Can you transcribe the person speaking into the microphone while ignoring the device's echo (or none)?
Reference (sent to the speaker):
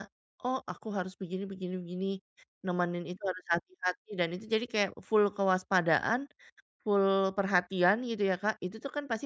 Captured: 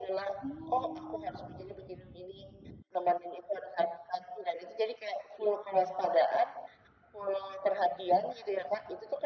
Oh.